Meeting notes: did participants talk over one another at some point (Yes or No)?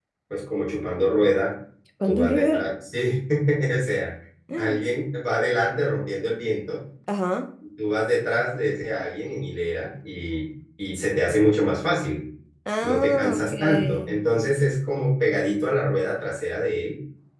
Yes